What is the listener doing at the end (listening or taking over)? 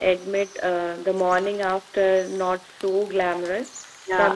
listening